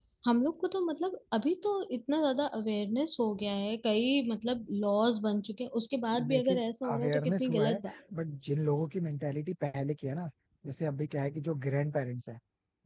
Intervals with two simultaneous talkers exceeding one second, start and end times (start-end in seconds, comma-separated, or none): 6.3-7.9